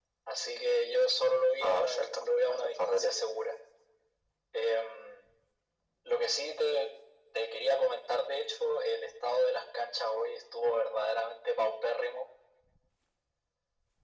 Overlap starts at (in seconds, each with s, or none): 1.6 s